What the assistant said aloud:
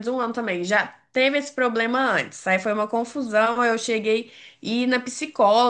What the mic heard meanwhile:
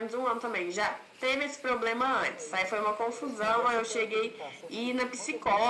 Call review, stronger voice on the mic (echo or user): echo